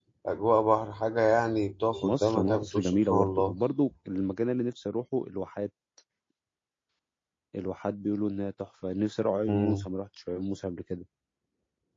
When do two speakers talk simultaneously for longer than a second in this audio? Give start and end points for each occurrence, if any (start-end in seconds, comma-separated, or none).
2.0-3.6